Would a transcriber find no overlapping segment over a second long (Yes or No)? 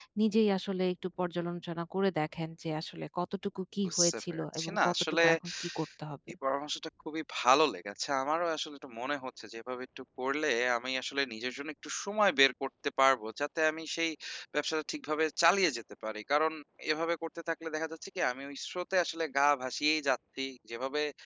No